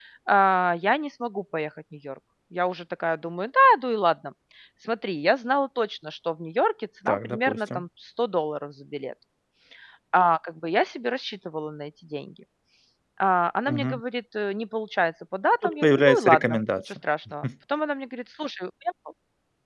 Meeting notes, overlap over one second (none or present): present